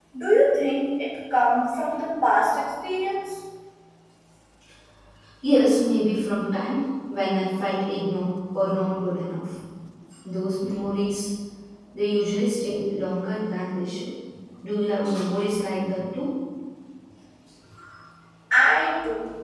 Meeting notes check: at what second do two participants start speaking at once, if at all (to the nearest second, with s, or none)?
none